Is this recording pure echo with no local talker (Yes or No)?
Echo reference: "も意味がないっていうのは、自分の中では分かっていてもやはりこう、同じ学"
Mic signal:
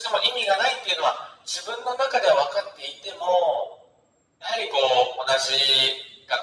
Yes